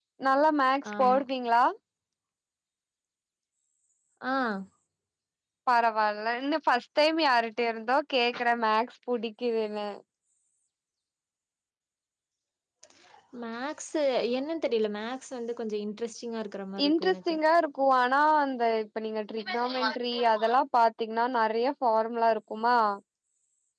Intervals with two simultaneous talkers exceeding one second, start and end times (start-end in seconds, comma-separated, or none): none